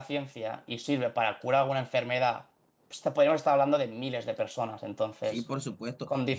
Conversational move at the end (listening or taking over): taking over